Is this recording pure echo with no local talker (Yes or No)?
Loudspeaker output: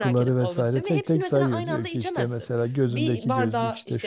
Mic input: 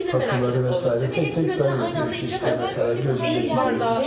No